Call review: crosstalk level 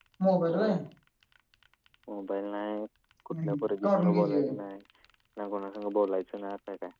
present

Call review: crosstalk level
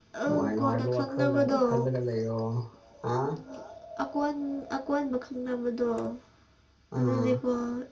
present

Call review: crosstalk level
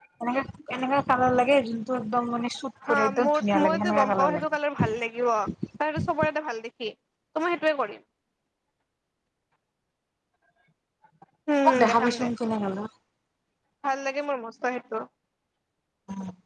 present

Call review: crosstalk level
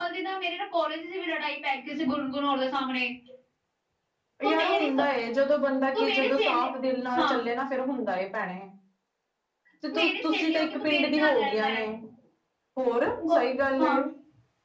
present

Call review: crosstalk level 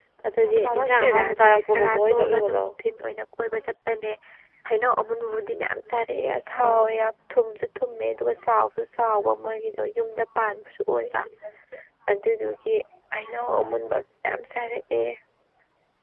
present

